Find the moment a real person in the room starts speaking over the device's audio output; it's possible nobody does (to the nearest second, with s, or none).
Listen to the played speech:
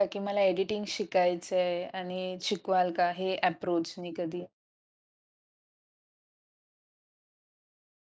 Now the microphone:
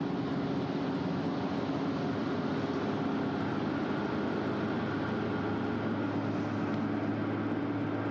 none